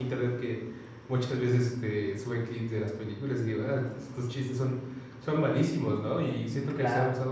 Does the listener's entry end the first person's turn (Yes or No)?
No